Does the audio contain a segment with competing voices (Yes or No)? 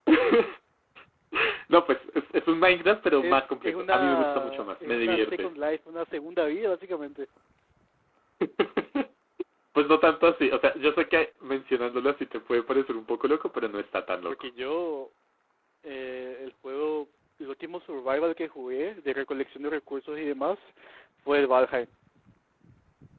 Yes